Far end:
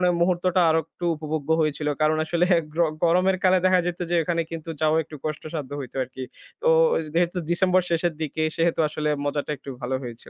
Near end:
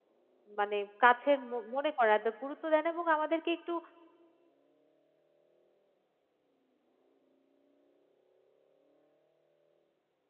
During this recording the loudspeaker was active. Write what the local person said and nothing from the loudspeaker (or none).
মানে কাছের ম মনে করে না, তা গুরুত্ব দেয় না এবং আমাদেরকে একটু